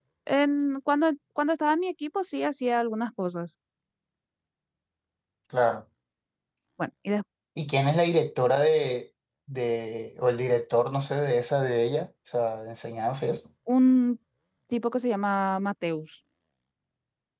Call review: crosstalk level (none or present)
none